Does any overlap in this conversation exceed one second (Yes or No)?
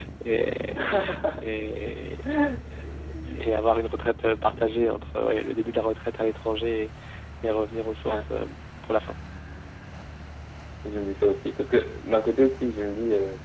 No